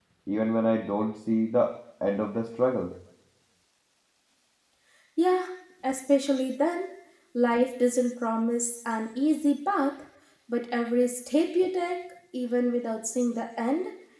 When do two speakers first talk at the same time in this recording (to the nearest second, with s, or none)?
none